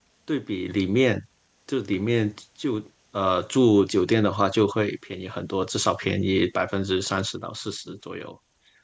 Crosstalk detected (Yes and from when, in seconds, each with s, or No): No